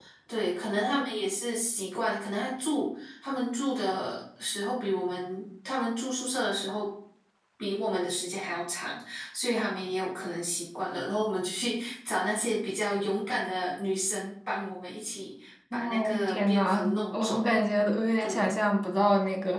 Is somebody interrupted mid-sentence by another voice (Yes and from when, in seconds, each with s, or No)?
Yes, from 15.7 s